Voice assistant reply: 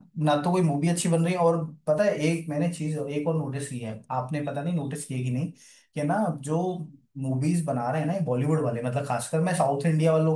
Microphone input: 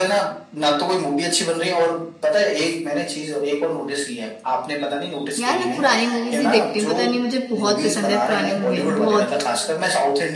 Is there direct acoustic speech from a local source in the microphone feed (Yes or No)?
Yes